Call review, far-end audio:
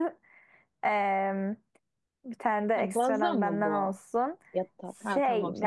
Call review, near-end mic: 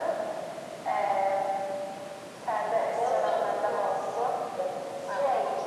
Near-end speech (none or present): none